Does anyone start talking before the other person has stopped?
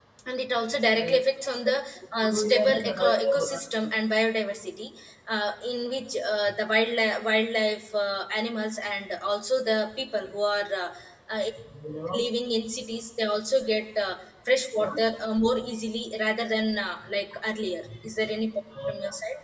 Yes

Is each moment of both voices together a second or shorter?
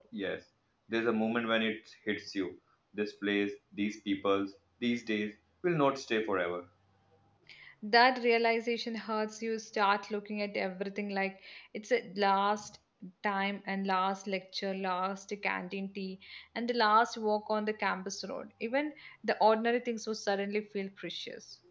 Yes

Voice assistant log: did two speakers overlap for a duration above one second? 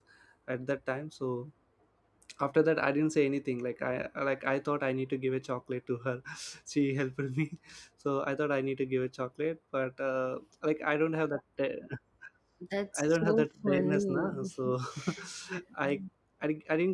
Yes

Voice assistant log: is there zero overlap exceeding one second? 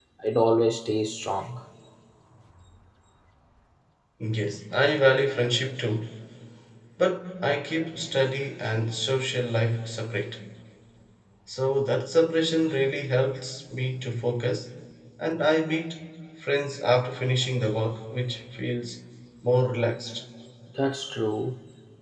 Yes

